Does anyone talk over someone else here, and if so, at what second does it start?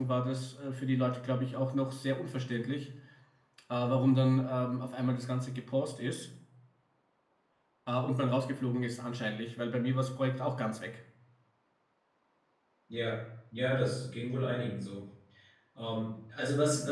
none

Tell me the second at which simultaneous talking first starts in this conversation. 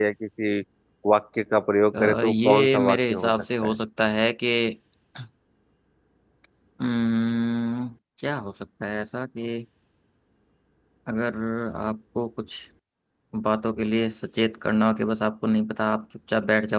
2 s

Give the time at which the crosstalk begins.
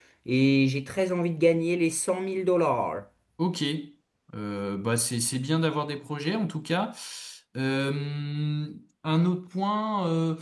none

